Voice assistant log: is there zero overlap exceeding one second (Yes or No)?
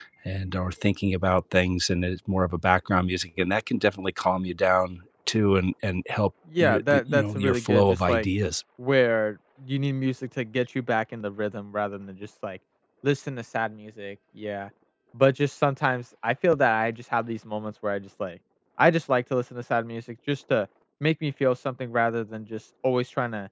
No